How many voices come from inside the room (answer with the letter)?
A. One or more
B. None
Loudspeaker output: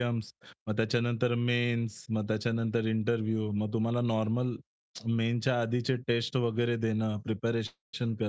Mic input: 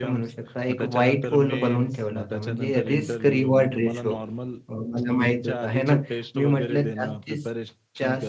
A